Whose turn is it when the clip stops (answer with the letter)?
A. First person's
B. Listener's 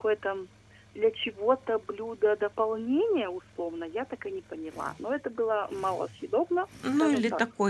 B